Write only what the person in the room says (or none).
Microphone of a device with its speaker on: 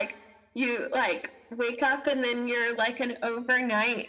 none